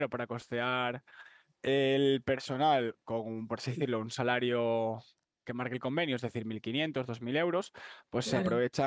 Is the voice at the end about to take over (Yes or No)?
No